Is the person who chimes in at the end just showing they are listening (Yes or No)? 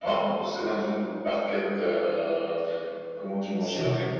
No